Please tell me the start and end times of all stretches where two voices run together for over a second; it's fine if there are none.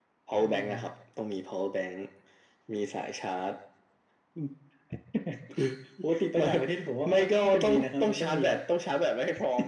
7.1-8.6

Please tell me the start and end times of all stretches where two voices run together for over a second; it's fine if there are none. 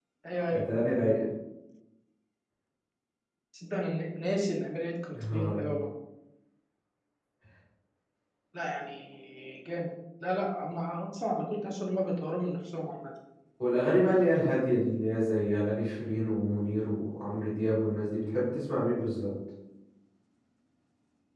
none

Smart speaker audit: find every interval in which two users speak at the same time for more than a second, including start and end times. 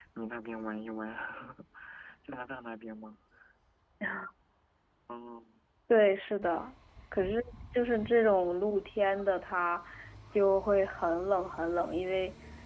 none

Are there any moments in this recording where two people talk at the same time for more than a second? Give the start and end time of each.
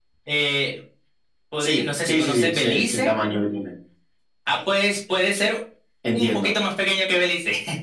1.6-3.1

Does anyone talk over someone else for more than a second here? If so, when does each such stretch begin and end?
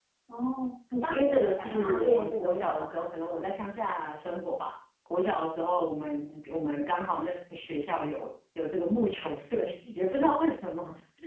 1.1-3.0

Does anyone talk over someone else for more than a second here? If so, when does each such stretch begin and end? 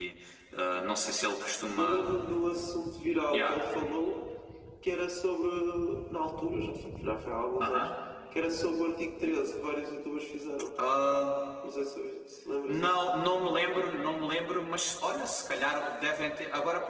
none

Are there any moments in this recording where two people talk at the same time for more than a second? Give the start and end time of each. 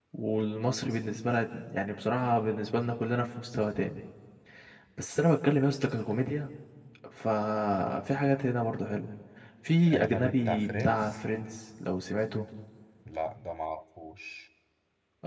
9.9-11.2

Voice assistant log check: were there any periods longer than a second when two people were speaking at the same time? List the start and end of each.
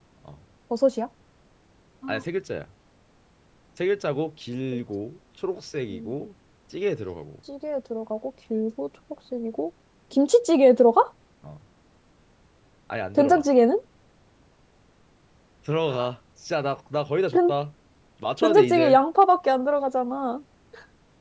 none

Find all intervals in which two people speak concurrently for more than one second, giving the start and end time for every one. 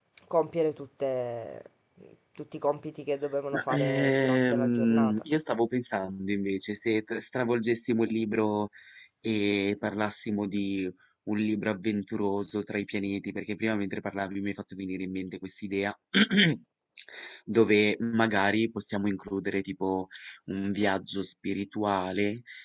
3.5-5.2

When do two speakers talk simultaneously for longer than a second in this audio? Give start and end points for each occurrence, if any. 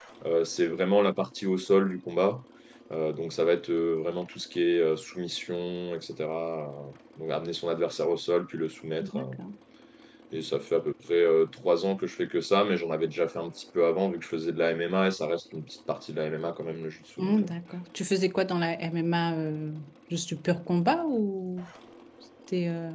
none

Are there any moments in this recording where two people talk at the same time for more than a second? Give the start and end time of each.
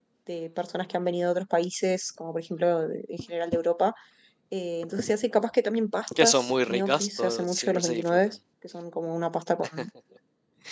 6.2-8.2

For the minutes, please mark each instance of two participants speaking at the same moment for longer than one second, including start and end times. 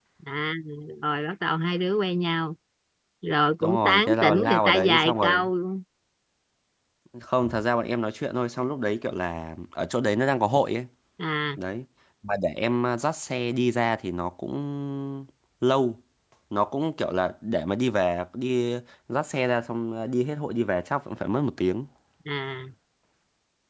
3.6-5.4

